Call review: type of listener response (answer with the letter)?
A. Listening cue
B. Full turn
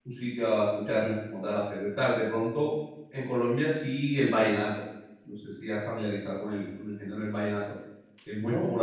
A